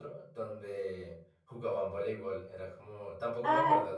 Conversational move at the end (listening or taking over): taking over